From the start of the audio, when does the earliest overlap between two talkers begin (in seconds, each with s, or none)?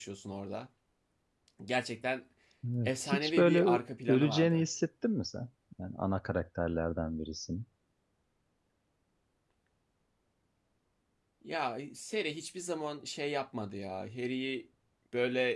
2.8 s